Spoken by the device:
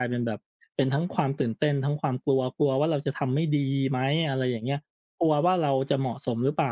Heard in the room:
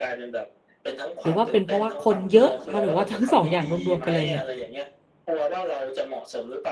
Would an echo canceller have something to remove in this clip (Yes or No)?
Yes